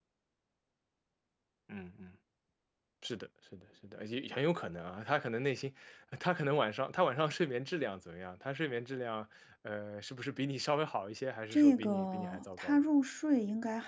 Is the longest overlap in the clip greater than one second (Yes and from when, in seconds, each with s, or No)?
Yes, from 11.5 s